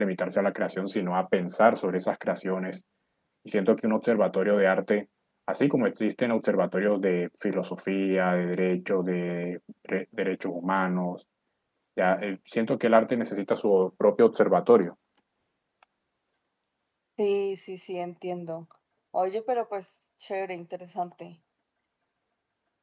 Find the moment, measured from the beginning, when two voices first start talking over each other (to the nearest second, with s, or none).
none